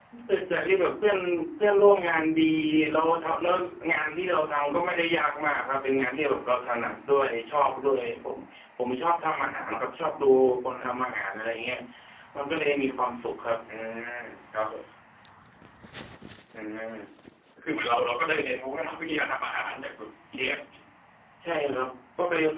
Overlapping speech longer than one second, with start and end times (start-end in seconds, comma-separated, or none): none